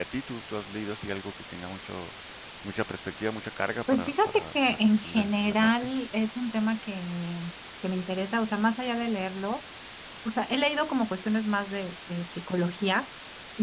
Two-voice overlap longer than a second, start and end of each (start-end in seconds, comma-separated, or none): 3.9-5.9